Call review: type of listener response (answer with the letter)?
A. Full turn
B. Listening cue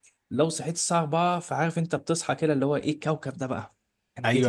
A